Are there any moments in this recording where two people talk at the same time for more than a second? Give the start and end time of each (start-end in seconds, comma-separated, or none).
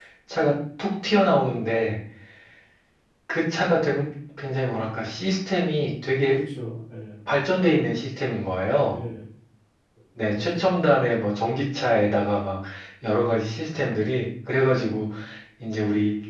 none